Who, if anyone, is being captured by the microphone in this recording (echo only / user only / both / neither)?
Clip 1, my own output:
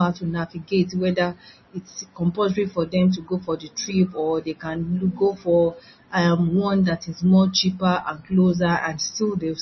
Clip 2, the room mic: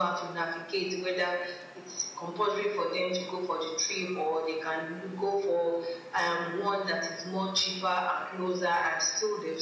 echo only